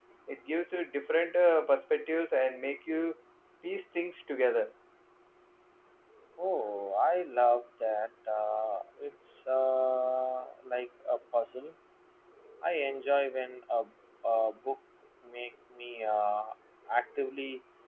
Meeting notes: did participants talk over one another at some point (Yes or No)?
No